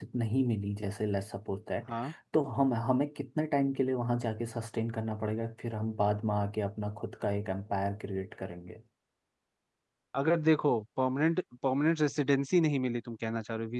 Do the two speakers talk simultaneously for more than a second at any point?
No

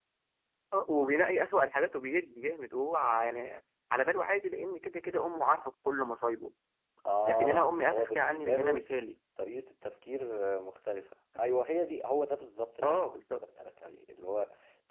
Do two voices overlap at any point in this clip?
Yes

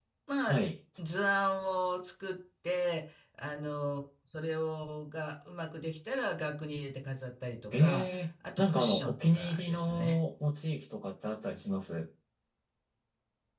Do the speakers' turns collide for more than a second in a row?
Yes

